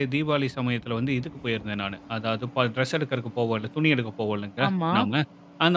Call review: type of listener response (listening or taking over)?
listening